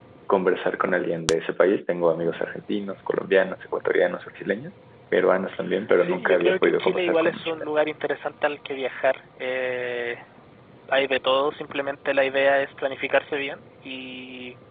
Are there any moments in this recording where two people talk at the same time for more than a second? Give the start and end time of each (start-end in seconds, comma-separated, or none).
6.0-7.6